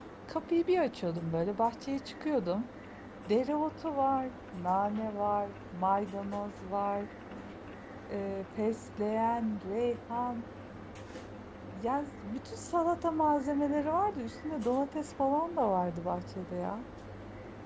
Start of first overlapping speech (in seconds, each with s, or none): none